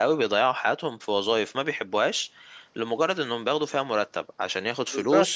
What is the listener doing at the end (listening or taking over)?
taking over